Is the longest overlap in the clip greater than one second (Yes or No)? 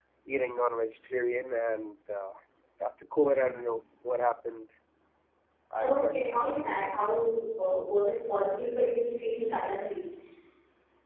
Yes